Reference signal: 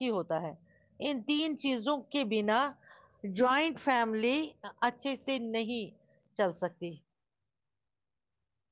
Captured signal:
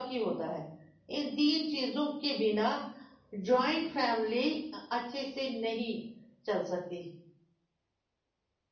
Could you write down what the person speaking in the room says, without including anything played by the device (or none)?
none